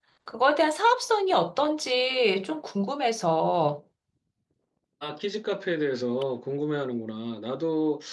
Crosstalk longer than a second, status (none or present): none